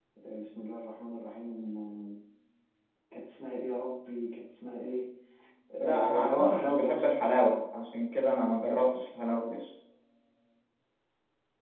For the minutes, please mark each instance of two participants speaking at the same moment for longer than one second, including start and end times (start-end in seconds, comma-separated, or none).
5.8-7.1